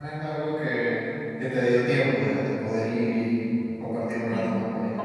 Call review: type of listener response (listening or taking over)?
taking over